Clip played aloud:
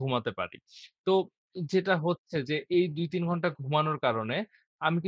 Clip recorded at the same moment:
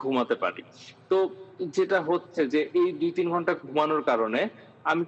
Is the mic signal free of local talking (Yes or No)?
Yes